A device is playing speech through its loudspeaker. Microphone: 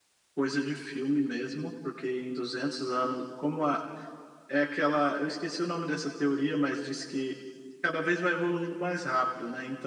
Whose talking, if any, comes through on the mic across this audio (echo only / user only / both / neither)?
echo only